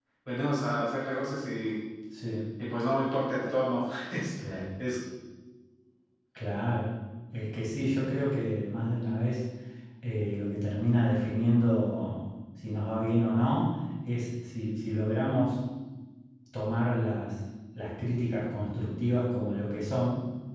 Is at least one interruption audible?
No

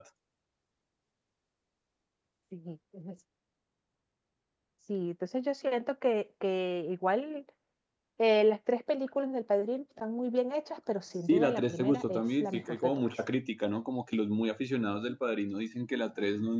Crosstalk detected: Yes, from 11.3 s

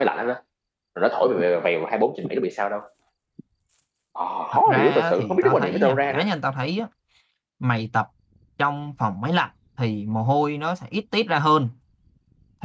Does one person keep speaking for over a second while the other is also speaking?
Yes, from 4.7 s

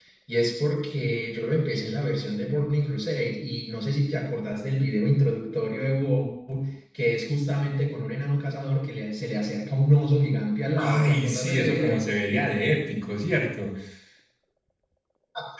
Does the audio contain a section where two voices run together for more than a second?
Yes, from 10.8 s

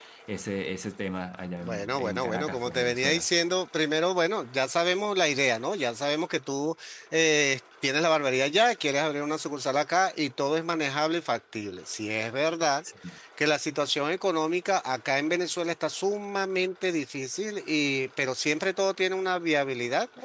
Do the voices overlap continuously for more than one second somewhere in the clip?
Yes, from 1.6 s

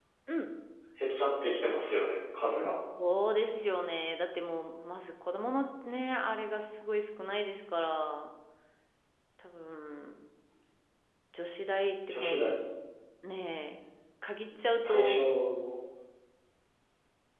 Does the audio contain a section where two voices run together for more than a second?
No

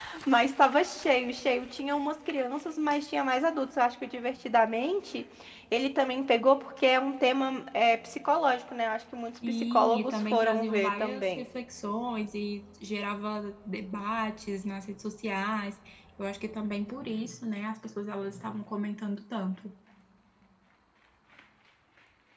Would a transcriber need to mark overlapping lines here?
Yes, from 9.4 s

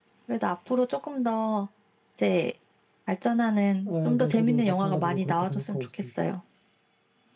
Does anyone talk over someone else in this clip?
Yes, from 3.9 s

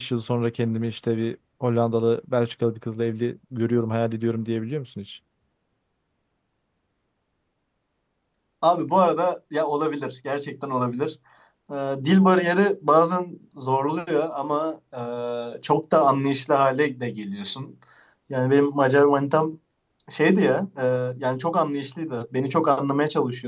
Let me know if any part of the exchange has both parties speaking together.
No

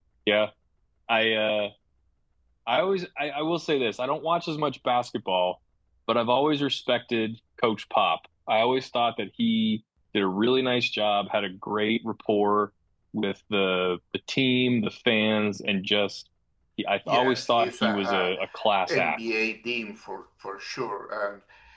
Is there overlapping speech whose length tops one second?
Yes, from 17.1 s

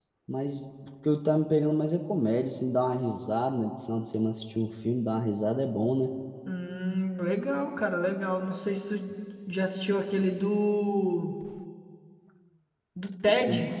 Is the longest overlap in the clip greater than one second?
No

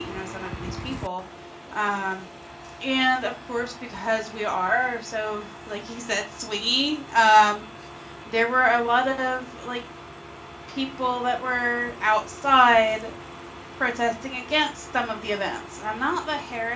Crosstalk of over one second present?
No

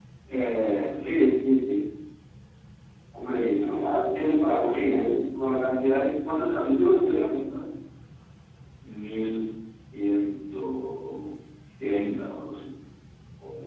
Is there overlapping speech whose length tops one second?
Yes, from 3.3 s

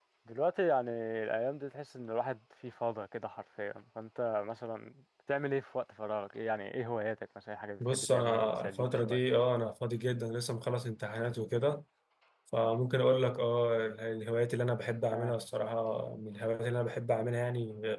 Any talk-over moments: Yes, from 7.8 s

